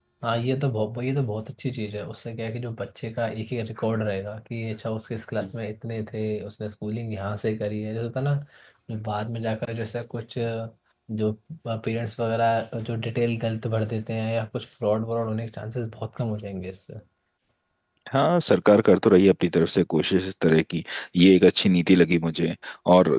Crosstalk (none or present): none